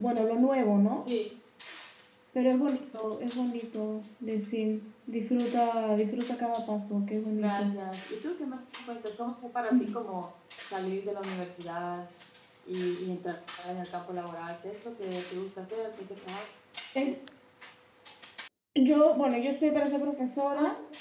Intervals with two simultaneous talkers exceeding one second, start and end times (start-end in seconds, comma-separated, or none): none